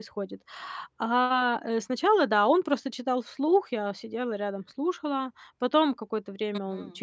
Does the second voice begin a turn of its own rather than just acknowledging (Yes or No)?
No